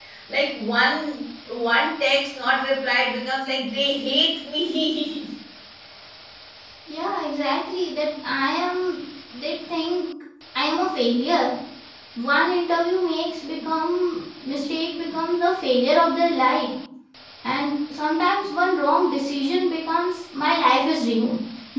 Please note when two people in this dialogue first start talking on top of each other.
none

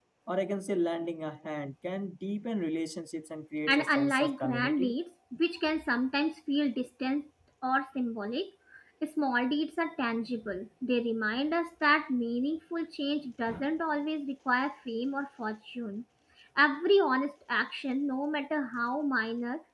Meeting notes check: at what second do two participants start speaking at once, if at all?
3.7 s

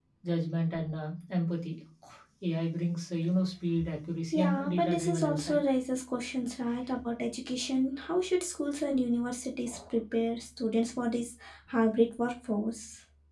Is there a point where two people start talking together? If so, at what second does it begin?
4.3 s

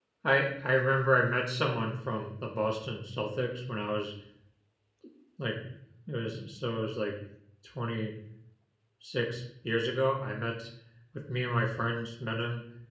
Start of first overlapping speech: none

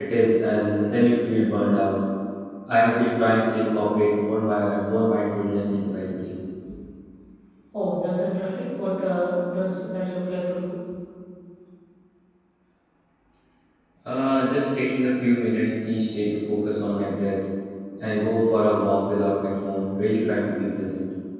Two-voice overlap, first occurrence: none

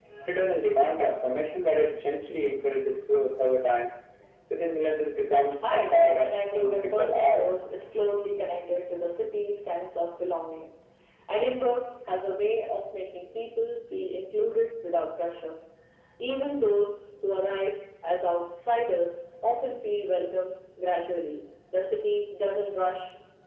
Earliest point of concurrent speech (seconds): 5.6 s

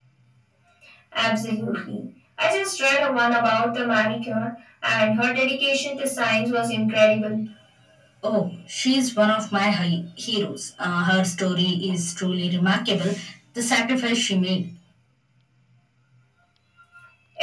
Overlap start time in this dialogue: none

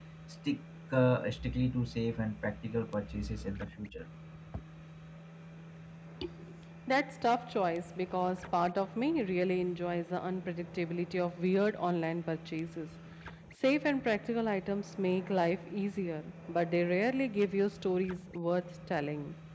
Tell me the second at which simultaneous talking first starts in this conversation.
none

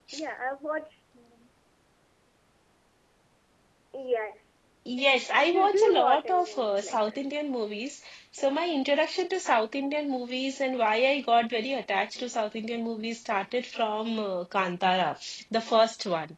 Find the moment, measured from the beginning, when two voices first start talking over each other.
5.4 s

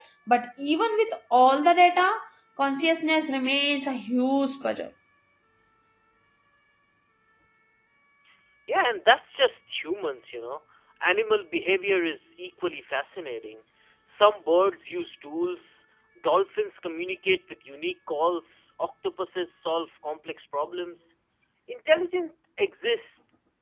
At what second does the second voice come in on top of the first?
none

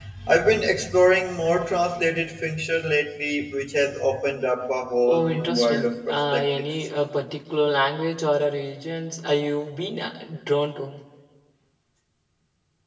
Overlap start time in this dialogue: 5.0 s

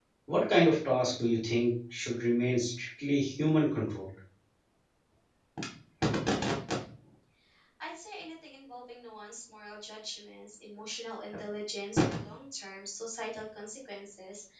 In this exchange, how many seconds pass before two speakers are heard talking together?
none

